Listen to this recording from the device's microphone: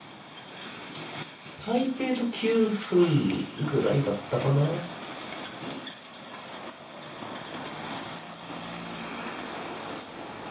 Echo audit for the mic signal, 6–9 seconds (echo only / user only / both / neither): neither